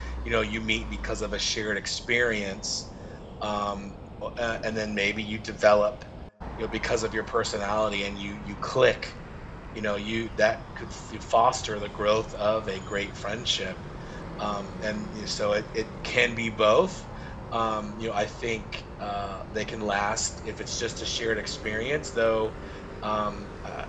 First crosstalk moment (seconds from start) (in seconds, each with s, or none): none